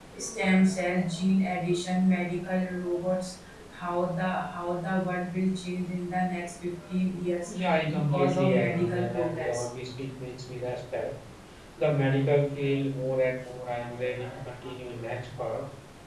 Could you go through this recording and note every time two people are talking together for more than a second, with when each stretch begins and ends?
8.0-9.6

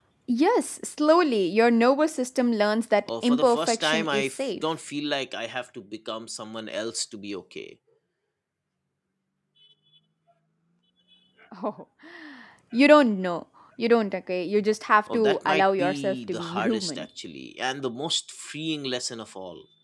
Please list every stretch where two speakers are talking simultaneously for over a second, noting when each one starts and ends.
3.1-4.6, 15.1-17.1

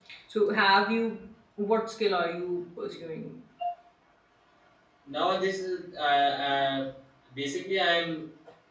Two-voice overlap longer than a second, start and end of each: none

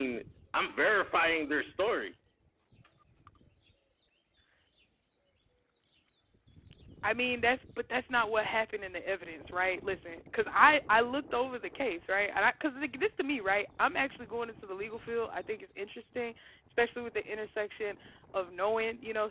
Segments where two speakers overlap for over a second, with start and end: none

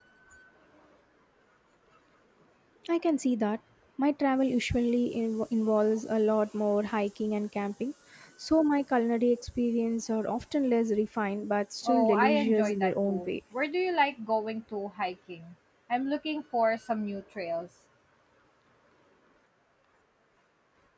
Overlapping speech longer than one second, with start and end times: 11.8-13.3

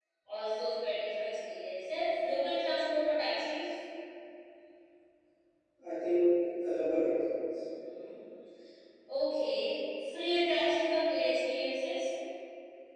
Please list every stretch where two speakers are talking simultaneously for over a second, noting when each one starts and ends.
none

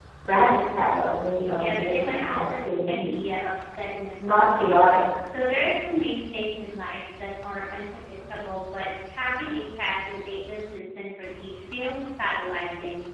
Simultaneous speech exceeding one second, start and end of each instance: 1.5-3.1

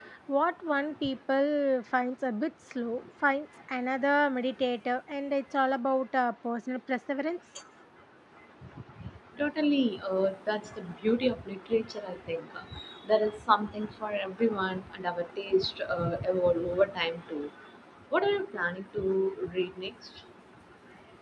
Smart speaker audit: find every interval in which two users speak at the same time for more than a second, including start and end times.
none

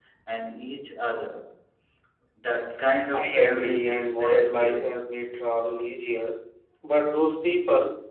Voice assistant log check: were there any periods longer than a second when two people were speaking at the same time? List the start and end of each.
3.1-5.0

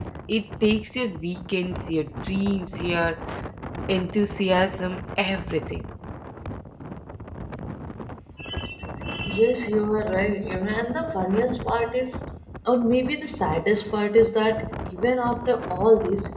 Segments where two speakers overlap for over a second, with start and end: none

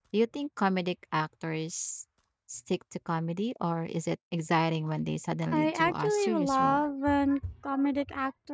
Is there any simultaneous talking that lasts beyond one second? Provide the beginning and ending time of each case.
5.5-6.8

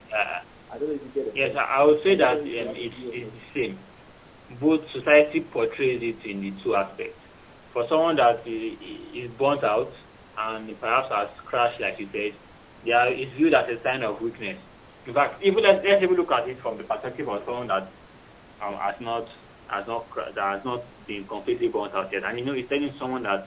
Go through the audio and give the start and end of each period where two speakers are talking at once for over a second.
2.1-3.4

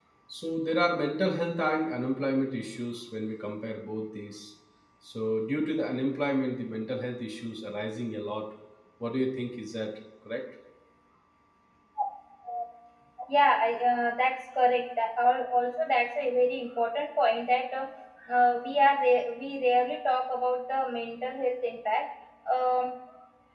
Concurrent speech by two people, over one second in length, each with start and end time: none

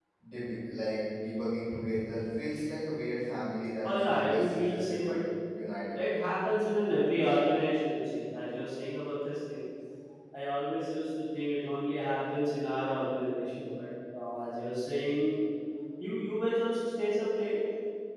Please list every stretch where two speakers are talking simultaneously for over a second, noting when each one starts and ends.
3.8-5.2

